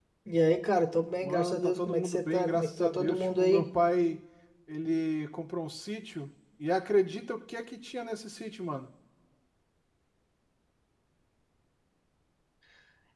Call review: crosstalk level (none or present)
present